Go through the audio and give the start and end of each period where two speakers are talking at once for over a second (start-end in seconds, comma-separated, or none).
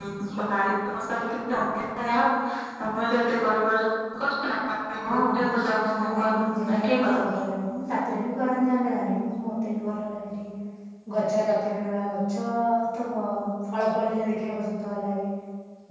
5.7-7.2